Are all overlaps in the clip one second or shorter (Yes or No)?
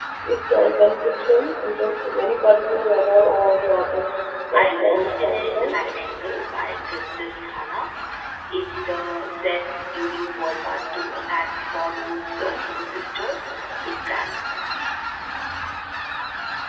No